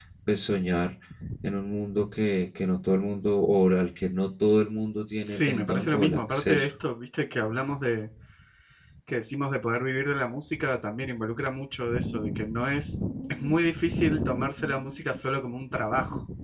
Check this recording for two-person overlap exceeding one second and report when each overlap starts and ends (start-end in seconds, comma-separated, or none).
5.2-6.7